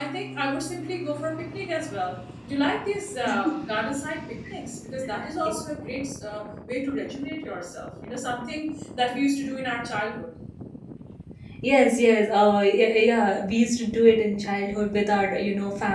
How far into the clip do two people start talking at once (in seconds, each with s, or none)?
none